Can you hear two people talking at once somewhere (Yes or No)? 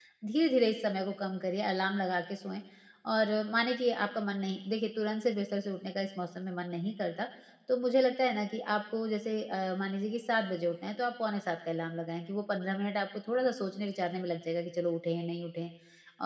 No